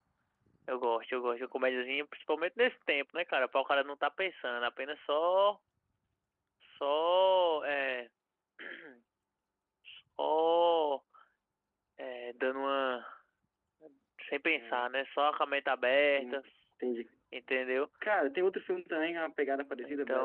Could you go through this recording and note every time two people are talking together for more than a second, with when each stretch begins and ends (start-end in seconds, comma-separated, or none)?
none